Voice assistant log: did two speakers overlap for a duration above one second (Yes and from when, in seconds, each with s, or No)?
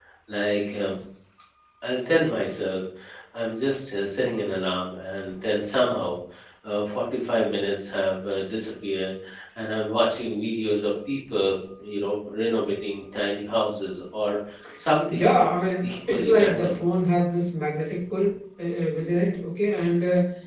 Yes, from 15.1 s